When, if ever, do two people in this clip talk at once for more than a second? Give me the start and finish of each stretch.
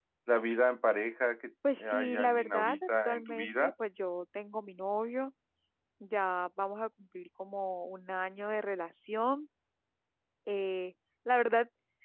1.9-3.7

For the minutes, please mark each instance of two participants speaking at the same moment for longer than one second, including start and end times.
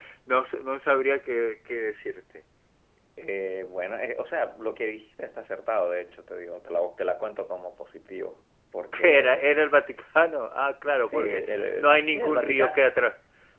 11.1-12.8

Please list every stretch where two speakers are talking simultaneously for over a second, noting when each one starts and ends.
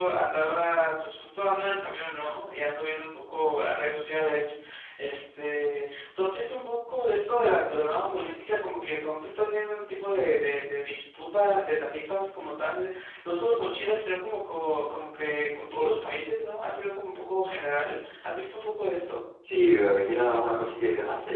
none

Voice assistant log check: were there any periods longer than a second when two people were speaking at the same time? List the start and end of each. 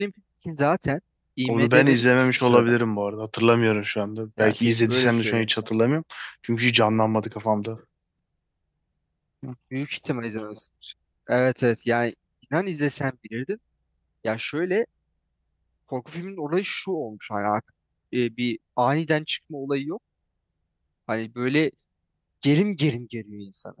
1.5-2.7, 4.4-5.7

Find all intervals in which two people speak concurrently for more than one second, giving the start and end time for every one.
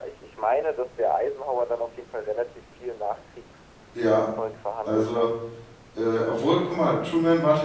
none

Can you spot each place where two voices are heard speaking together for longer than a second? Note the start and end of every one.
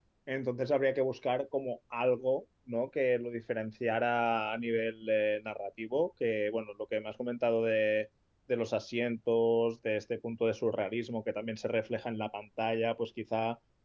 none

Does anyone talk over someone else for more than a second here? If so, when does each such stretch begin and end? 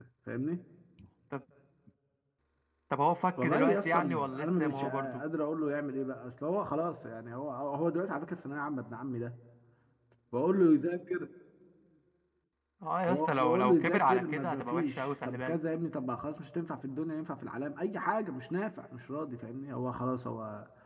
3.4-5.2, 13.1-15.6

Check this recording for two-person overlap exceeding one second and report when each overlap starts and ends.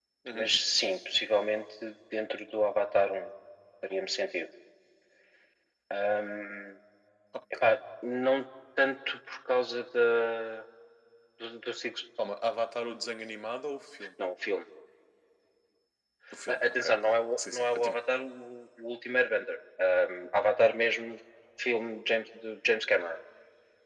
16.5-18.0

